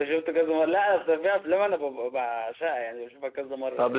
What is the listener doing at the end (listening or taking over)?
taking over